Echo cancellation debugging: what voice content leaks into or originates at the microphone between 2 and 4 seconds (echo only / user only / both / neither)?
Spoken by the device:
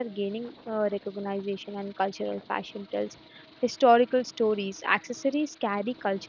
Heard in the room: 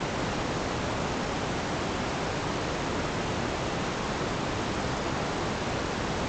neither